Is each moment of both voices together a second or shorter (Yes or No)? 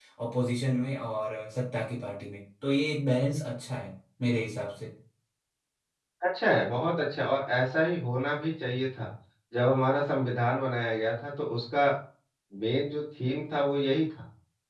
Yes